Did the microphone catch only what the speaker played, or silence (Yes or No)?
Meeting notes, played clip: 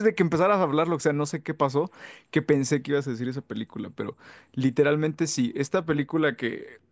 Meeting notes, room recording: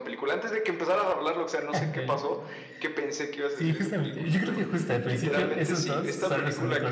No